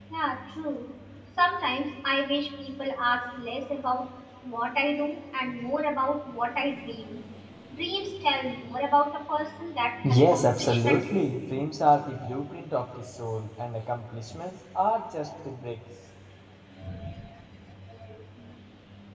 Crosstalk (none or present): present